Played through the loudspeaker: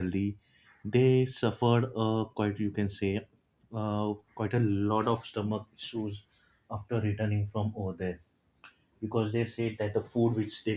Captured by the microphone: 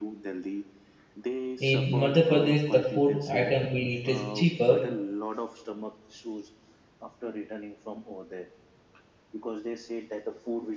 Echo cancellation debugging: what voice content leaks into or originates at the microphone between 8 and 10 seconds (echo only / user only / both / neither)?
echo only